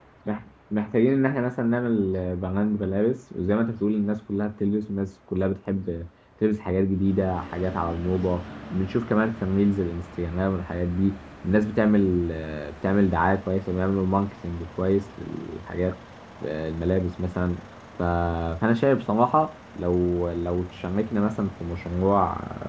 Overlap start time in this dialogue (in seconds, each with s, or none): none